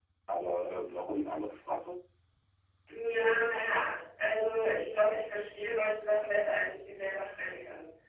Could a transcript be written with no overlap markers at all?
Yes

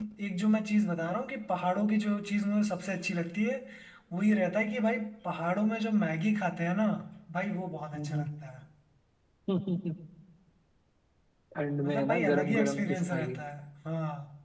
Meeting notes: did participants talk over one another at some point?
Yes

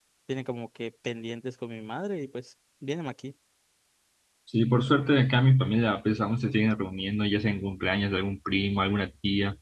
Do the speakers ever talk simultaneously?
No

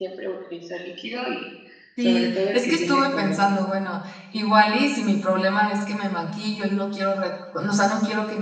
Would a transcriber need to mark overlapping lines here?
Yes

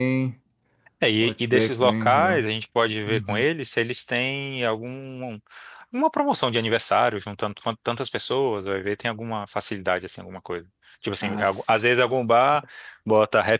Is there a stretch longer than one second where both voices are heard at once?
Yes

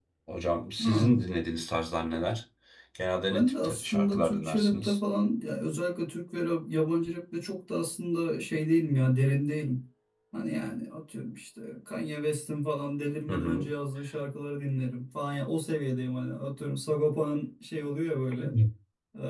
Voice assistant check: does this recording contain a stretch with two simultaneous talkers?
Yes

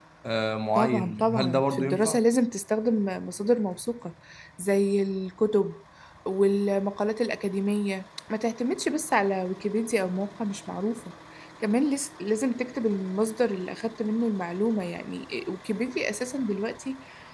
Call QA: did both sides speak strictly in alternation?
No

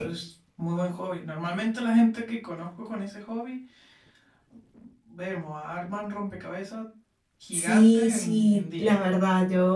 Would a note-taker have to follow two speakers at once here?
Yes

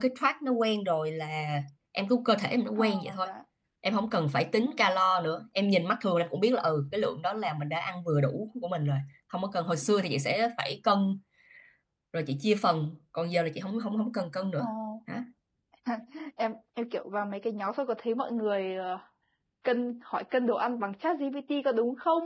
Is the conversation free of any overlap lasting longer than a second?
Yes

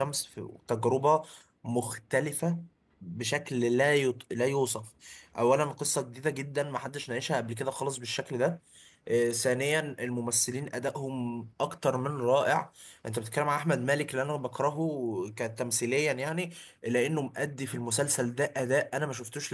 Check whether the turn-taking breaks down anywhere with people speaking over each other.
No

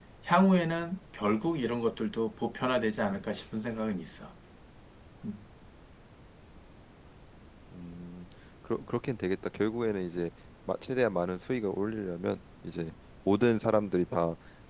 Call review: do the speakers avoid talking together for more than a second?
Yes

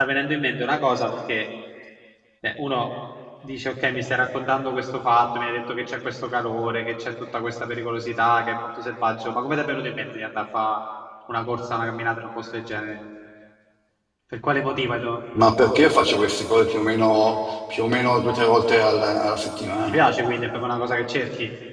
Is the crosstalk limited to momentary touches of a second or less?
Yes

